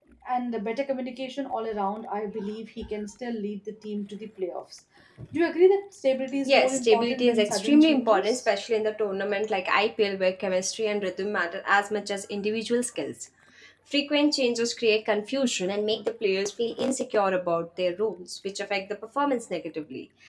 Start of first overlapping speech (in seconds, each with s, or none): 6.5 s